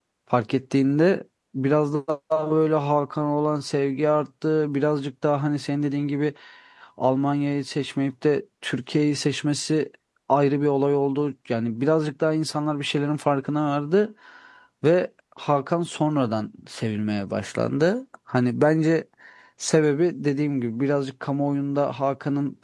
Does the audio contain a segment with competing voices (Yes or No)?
No